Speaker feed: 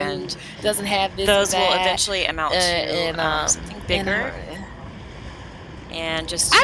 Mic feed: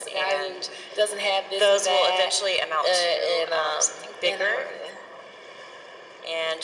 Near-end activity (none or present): none